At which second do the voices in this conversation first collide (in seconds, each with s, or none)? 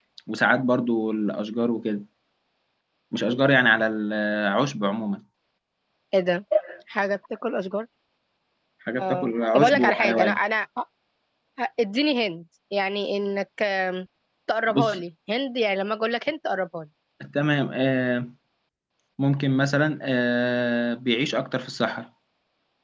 9.0 s